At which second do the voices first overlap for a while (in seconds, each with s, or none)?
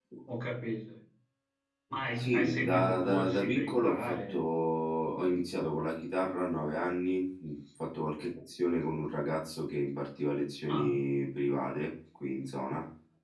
2.2 s